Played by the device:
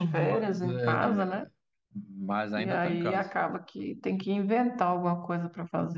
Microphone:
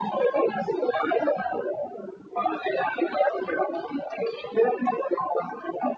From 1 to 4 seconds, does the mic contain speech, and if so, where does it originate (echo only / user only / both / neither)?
echo only